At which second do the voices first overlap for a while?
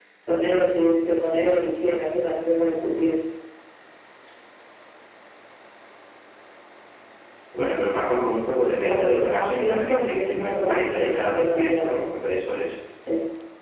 8.8 s

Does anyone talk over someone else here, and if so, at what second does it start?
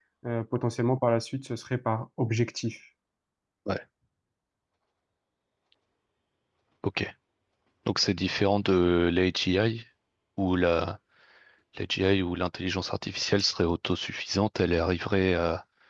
none

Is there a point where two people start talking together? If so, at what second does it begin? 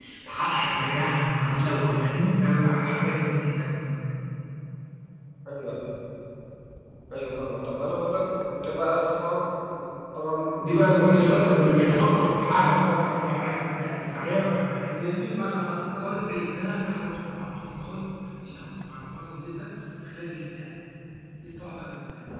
10.6 s

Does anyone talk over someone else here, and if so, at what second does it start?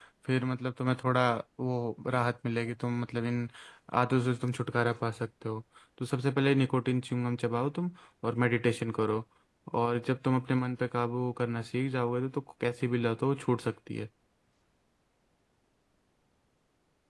none

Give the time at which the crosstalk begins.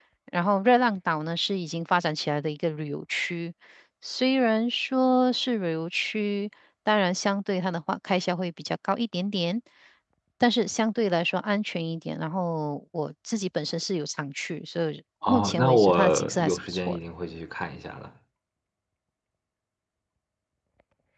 15.2 s

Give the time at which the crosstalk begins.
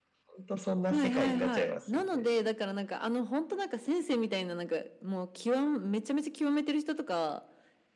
0.9 s

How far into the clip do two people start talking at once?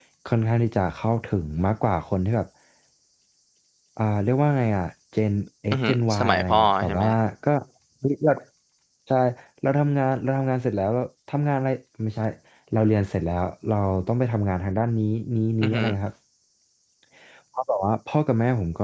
5.7 s

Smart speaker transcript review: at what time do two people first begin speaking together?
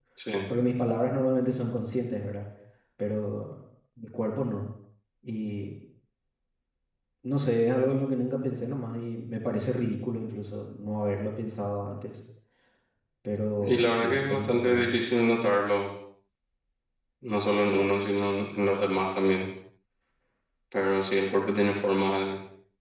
13.6 s

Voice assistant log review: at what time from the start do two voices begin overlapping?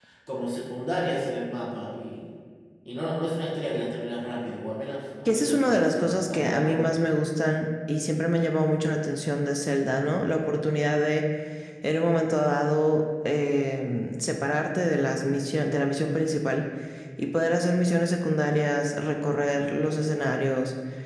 5.2 s

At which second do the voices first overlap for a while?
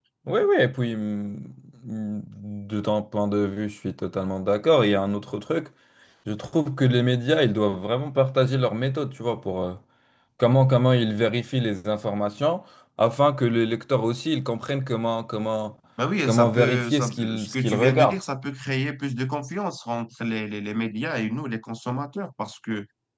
16.2 s

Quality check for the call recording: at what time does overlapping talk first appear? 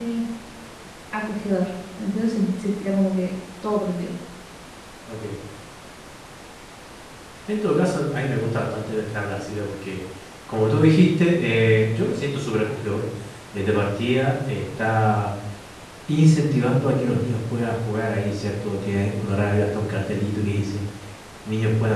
none

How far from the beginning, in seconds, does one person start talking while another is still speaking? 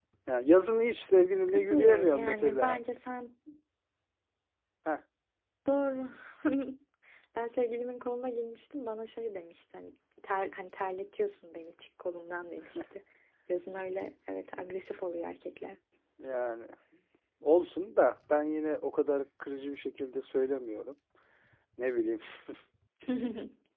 1.5 s

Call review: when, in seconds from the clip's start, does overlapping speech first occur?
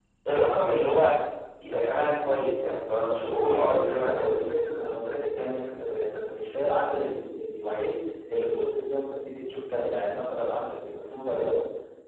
3.2 s

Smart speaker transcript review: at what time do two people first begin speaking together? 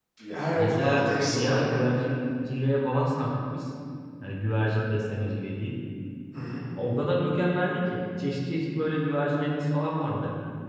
0.6 s

